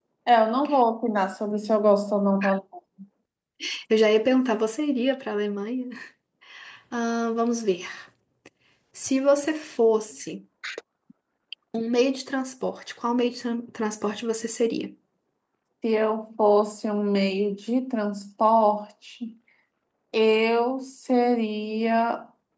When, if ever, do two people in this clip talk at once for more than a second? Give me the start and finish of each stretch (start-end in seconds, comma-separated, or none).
none